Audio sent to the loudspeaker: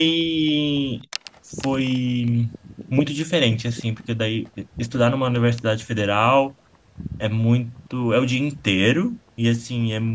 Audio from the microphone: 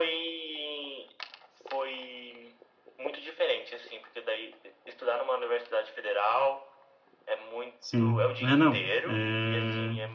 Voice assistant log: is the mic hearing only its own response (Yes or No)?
No